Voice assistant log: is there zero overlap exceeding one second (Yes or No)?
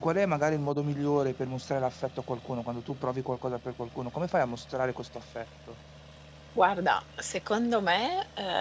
Yes